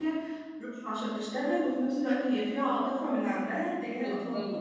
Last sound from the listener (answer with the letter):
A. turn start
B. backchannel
A